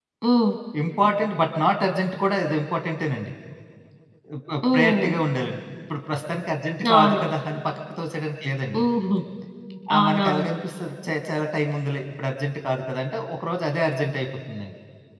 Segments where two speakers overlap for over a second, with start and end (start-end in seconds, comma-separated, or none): none